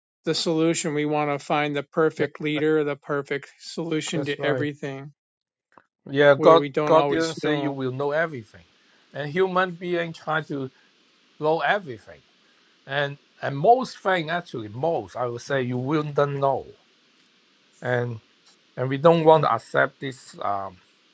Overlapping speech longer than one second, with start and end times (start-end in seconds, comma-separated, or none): 6.4-7.7